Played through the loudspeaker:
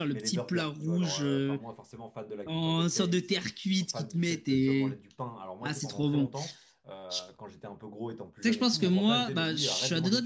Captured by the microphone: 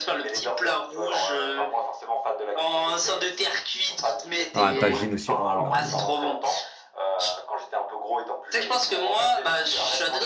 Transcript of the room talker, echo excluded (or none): Ah, tagine aussi. Oh là là.